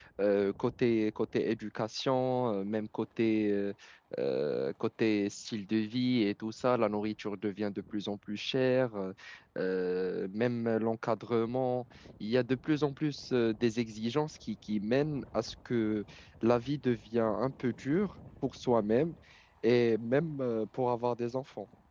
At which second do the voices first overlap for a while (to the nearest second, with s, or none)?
none